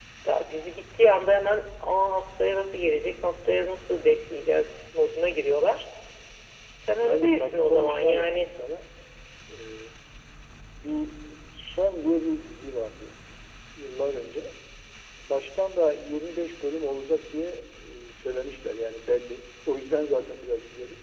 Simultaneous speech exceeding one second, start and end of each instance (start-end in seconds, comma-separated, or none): 7.0-8.5